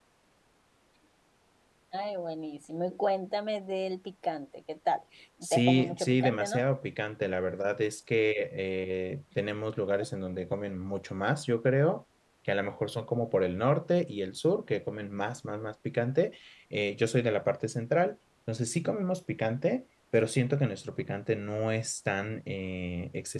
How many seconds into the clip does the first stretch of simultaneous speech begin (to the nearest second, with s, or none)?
5 s